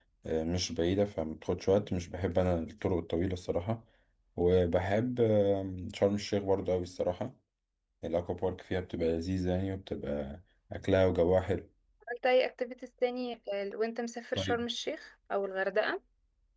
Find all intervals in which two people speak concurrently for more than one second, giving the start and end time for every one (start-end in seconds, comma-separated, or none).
none